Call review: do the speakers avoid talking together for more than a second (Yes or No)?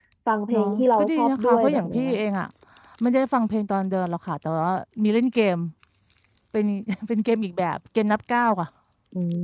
No